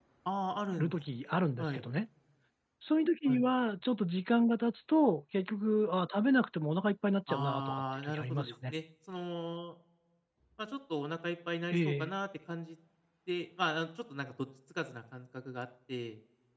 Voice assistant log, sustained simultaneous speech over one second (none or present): present